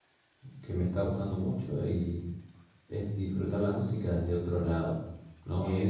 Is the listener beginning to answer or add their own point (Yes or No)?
Yes